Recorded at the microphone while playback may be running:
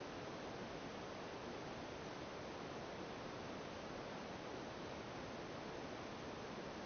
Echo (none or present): none